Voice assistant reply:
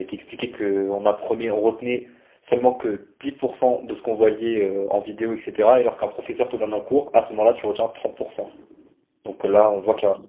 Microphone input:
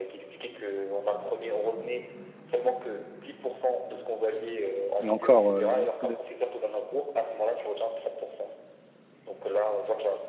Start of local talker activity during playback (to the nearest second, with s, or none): 5 s